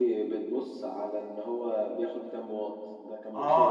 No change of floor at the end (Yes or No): No